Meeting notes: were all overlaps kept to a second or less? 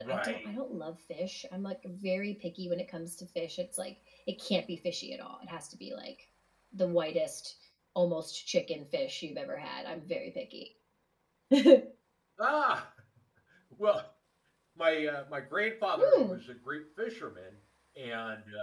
Yes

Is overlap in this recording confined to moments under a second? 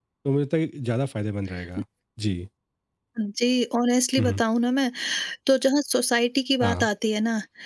Yes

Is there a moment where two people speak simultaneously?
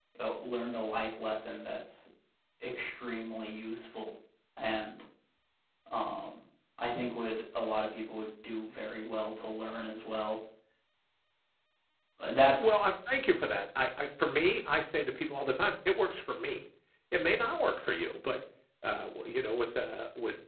No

